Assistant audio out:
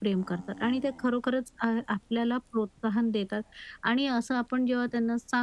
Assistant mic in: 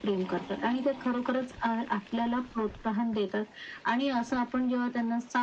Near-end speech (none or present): none